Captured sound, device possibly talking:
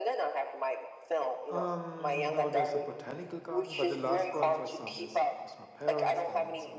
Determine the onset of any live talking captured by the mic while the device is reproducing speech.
1.5 s

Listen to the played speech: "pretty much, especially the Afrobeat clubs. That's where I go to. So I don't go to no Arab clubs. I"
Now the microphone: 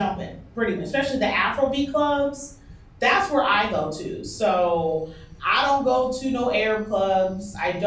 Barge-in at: none

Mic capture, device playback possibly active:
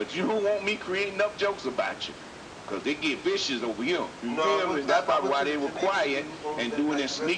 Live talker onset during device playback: 4.2 s

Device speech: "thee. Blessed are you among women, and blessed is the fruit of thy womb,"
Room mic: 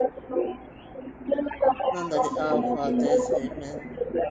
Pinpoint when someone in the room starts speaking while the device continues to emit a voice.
1.9 s

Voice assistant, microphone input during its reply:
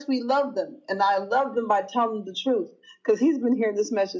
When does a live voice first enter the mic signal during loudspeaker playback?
none

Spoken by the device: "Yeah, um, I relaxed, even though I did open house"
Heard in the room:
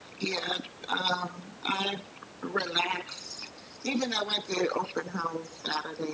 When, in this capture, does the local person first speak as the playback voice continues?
none

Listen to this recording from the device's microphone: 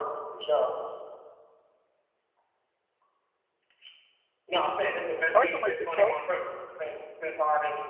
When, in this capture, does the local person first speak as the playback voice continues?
5.3 s

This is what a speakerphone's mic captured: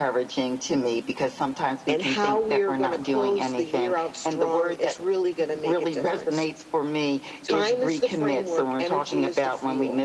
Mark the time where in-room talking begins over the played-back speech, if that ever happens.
none

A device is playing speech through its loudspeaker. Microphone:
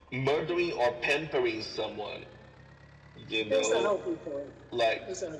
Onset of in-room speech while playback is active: 3.5 s

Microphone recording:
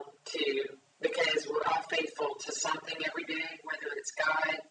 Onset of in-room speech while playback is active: none

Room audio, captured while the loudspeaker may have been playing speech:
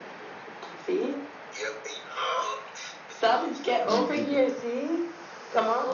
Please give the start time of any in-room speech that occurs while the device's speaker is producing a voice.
3.8 s

